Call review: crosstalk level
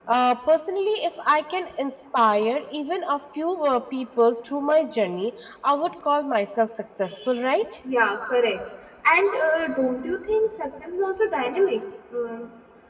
none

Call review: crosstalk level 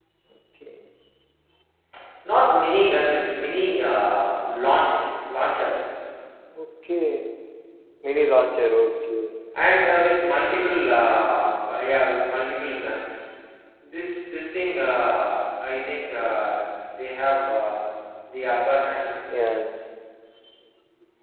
none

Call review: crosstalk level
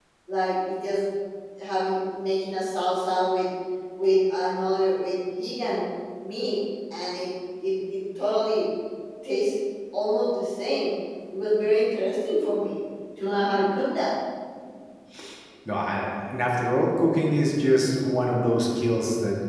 none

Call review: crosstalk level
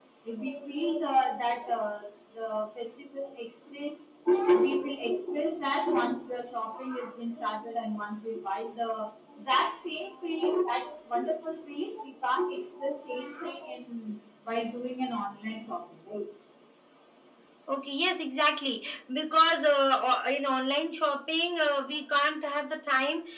none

